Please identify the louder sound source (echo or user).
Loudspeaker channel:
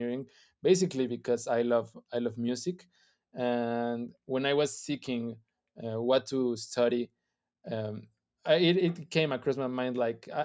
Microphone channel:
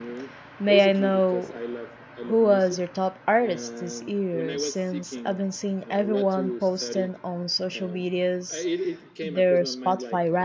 user